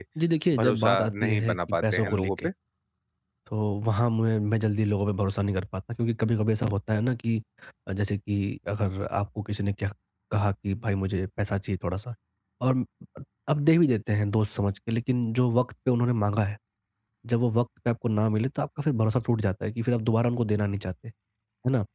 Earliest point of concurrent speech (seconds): 0.6 s

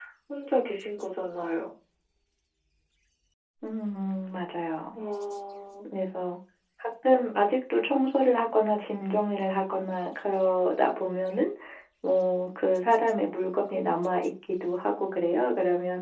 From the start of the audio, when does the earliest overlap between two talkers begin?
none

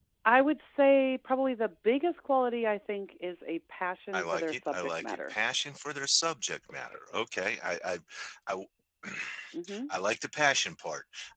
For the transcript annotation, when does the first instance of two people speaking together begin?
4.1 s

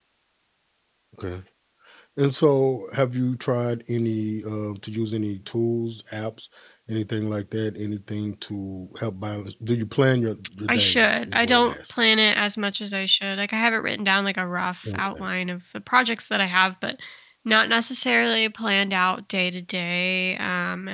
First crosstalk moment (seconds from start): 10.7 s

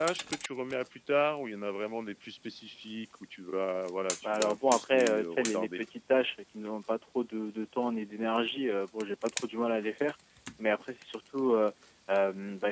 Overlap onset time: 4.2 s

